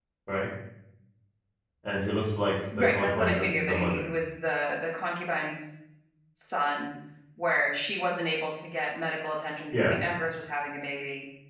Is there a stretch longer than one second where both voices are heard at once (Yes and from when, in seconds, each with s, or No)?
Yes, from 2.7 s